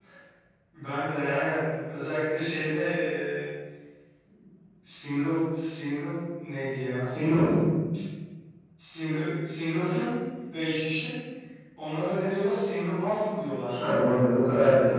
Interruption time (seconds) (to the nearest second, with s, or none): none